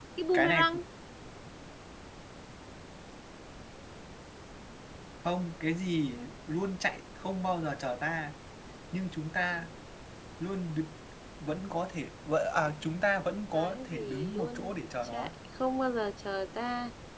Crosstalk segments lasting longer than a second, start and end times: 13.5-15.3

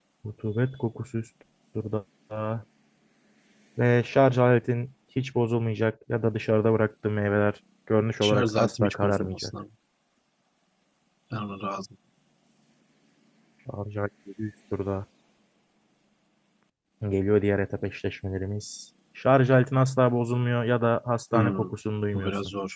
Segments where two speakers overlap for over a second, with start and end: 8.2-9.5

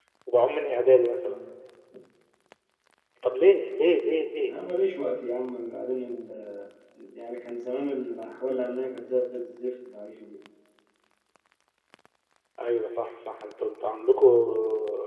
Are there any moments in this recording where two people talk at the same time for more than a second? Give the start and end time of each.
none

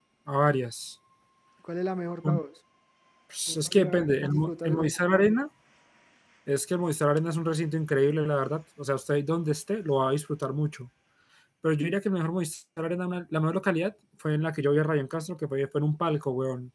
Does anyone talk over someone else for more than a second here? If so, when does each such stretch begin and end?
3.5-5.0

